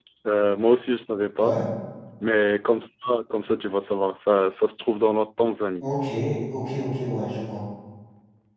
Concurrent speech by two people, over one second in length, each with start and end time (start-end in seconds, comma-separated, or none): none